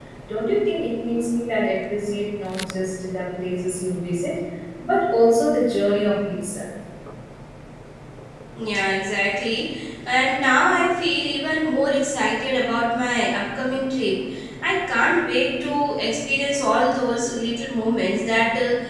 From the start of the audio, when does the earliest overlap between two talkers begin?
none

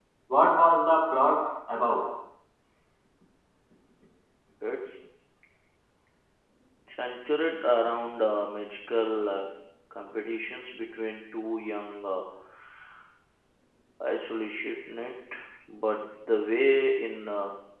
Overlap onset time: none

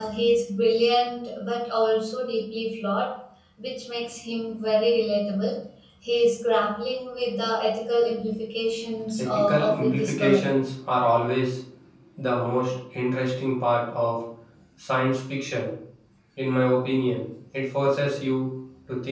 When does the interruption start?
9.2 s

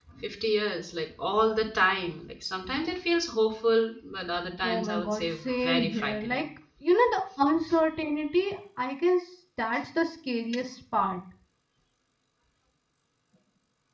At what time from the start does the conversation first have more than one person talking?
4.6 s

